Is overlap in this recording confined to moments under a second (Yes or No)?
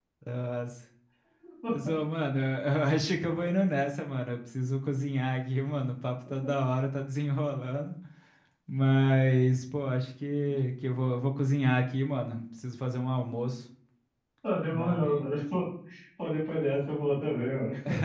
Yes